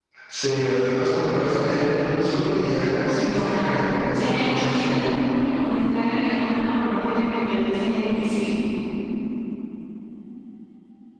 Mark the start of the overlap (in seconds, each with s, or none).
3.1 s